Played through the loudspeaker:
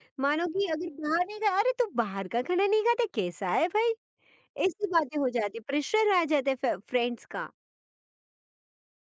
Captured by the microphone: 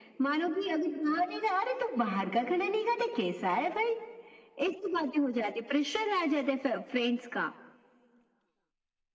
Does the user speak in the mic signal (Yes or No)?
No